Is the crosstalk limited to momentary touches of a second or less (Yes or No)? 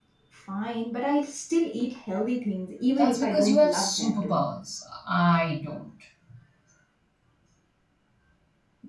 No